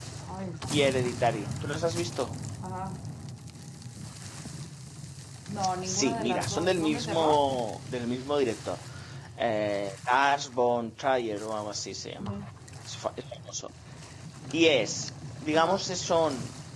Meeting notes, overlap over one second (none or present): present